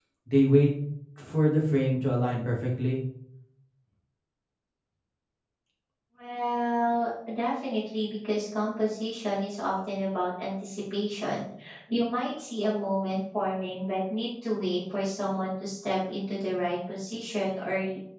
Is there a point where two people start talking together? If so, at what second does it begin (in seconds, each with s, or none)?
none